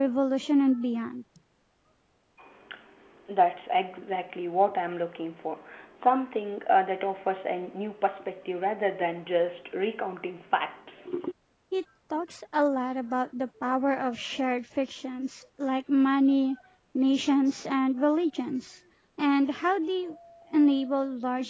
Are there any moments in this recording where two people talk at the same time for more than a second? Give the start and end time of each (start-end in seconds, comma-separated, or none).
none